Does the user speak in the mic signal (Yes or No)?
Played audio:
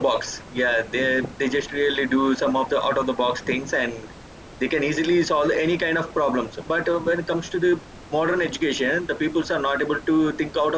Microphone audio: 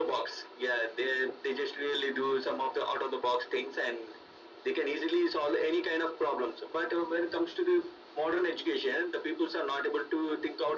No